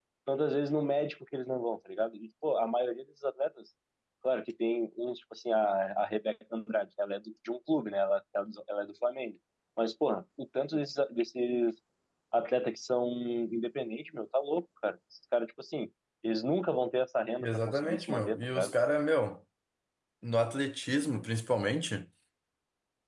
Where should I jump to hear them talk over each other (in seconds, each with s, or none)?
17.4 s